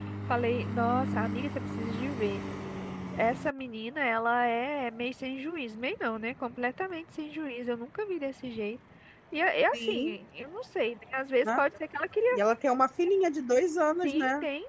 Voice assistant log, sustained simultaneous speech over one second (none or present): none